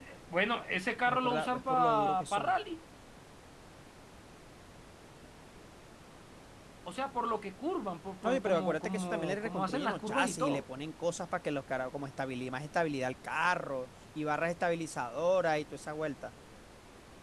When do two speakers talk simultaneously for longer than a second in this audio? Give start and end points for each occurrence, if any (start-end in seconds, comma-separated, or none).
1.1-2.5, 8.2-10.6